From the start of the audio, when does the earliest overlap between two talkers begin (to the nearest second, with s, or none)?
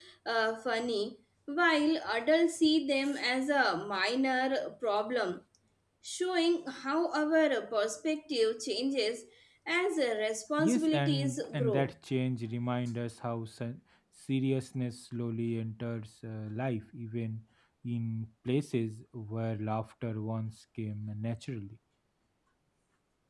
11 s